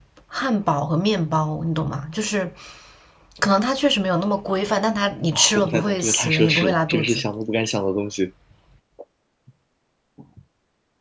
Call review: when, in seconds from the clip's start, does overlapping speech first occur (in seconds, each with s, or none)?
5.3 s